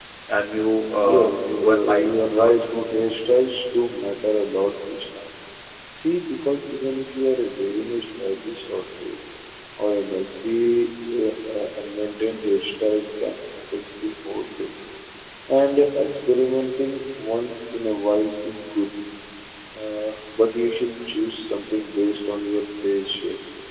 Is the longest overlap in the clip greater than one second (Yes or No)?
Yes